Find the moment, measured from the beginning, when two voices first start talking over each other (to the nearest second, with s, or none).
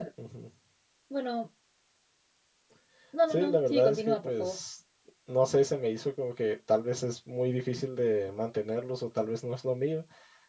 3 s